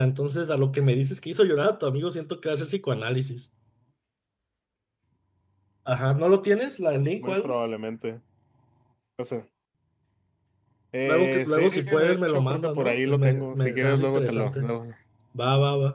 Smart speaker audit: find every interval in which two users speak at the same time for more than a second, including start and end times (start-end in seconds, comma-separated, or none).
11.1-14.6